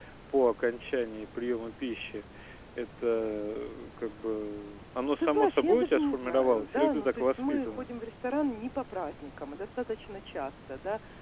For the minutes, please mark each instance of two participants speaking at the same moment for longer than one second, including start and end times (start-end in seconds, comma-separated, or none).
5.2-7.9